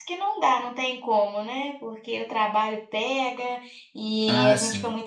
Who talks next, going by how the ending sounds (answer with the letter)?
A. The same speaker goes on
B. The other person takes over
A